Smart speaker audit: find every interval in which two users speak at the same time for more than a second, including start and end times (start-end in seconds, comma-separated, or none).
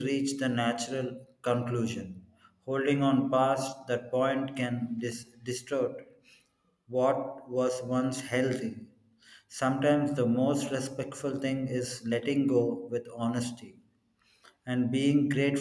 none